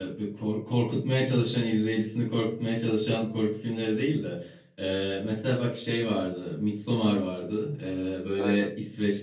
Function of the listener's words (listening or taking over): listening